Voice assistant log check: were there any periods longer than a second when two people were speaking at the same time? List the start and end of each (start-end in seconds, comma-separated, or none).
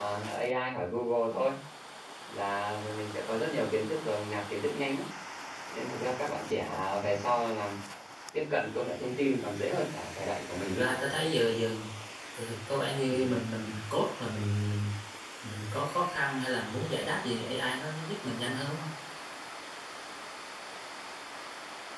none